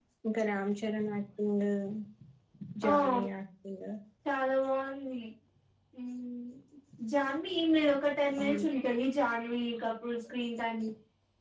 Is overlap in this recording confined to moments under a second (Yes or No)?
Yes